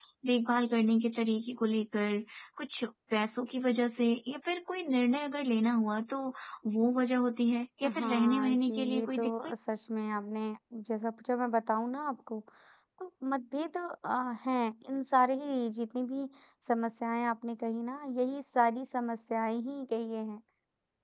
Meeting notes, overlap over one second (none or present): present